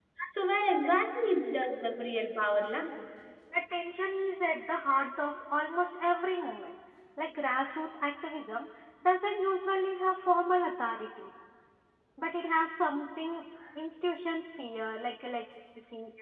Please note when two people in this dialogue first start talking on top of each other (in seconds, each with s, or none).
none